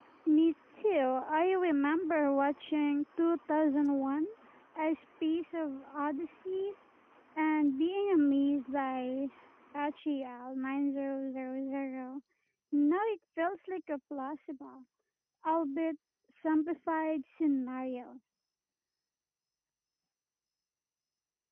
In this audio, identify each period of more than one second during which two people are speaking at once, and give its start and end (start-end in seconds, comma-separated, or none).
none